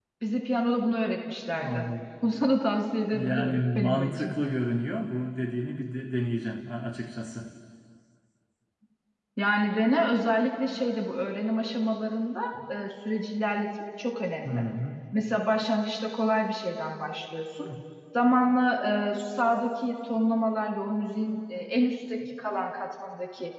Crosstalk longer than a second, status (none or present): present